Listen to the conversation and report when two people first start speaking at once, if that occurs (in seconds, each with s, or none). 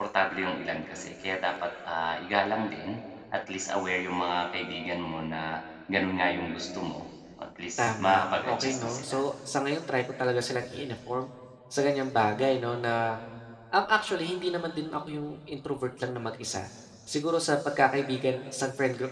7.8 s